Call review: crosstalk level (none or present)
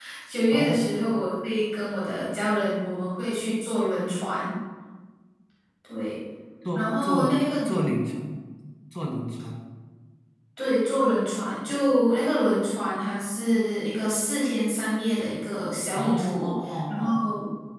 present